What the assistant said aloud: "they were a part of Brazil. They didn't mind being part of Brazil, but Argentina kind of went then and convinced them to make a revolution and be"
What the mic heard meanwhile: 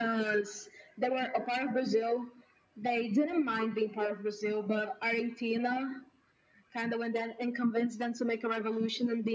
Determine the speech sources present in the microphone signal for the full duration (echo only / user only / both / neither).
echo only